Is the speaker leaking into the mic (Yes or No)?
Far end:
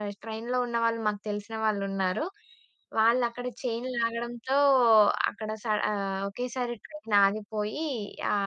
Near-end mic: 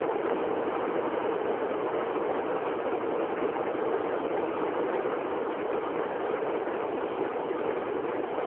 No